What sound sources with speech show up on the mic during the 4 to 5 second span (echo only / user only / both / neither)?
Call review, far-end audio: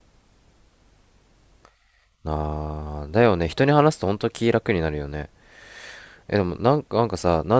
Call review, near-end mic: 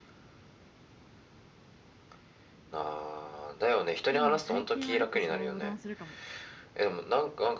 both